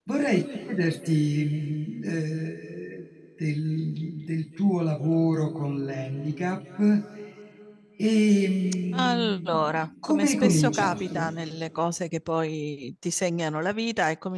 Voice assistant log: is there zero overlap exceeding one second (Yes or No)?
No